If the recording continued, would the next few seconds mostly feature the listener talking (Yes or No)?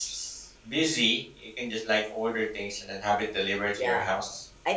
Yes